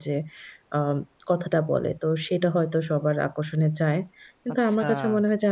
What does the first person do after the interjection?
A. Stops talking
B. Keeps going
B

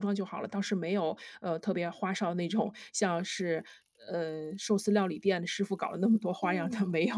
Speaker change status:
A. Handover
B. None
A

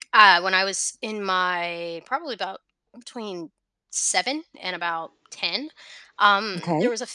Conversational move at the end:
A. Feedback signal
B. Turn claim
A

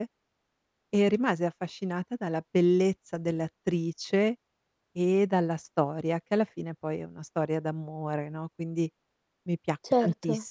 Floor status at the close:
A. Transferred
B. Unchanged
B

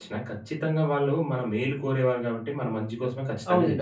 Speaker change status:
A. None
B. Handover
B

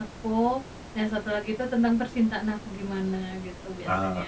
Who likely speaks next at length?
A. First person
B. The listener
B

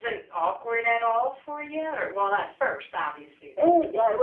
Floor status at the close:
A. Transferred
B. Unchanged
A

